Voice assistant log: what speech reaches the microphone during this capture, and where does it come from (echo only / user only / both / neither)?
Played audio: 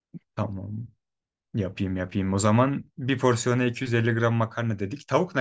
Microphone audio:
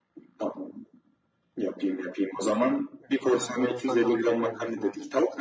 both